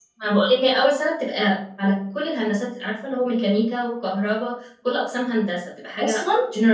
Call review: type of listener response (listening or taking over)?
taking over